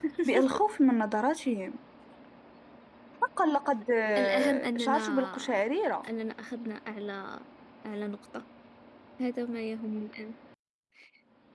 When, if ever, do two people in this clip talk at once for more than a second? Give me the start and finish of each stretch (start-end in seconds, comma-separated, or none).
4.2-5.6